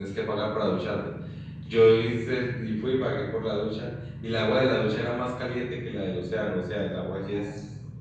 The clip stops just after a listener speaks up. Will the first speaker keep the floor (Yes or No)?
Yes